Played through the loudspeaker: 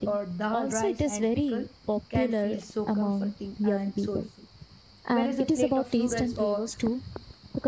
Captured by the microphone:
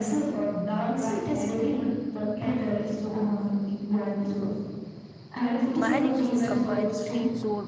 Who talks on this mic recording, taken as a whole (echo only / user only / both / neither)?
both